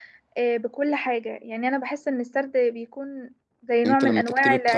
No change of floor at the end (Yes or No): No